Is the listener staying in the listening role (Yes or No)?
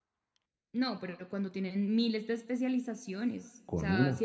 Yes